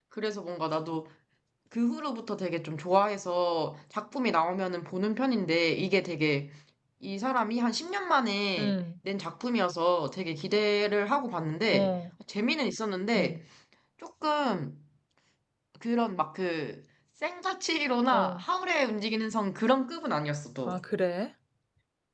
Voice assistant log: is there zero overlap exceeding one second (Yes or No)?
Yes